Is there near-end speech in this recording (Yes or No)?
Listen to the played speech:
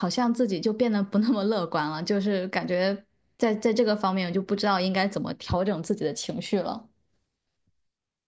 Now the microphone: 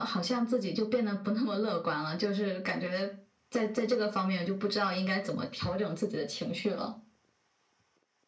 No